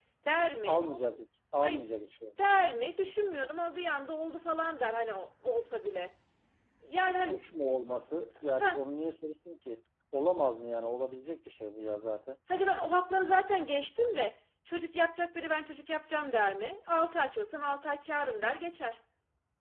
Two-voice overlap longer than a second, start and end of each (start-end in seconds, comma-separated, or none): none